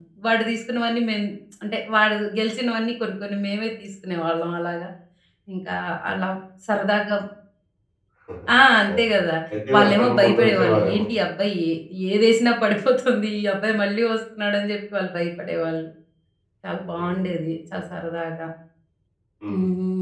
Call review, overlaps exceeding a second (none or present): present